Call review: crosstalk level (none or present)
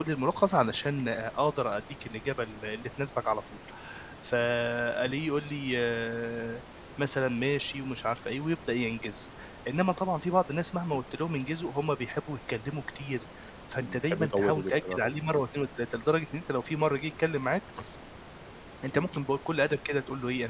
present